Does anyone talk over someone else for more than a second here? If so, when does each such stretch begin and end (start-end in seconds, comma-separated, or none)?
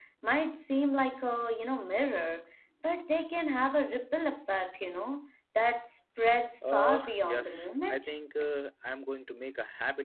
6.7-8.2